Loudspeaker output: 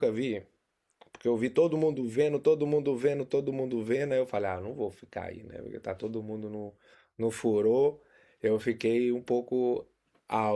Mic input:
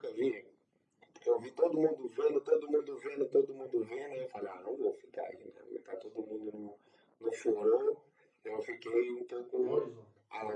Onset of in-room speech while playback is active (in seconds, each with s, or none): 9.6 s